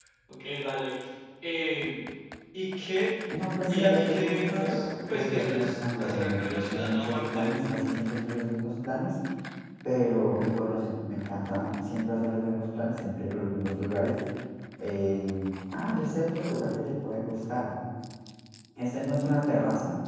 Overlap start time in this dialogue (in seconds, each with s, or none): 3.7 s